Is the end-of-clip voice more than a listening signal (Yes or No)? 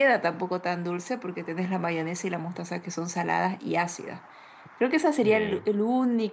No